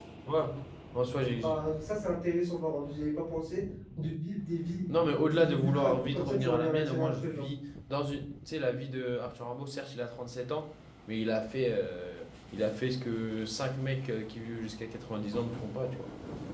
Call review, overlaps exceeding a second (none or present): present